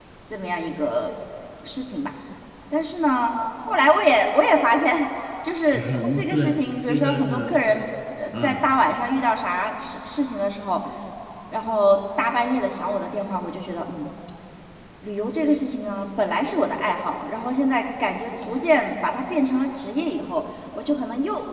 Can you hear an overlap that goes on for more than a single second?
Yes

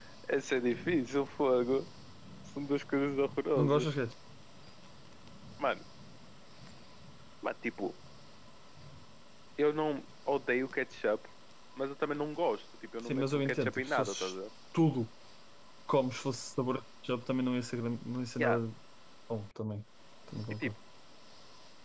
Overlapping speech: Yes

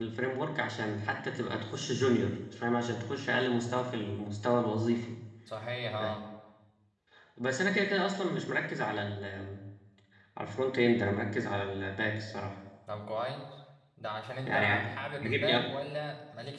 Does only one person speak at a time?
No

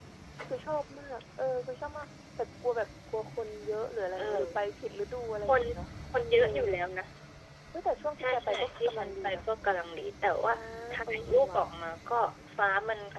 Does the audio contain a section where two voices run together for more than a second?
Yes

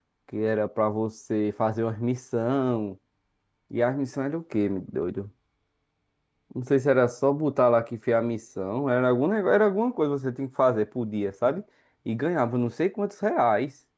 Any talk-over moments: No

